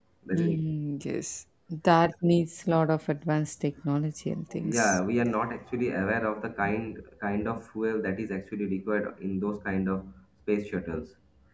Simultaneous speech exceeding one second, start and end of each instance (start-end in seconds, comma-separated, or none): none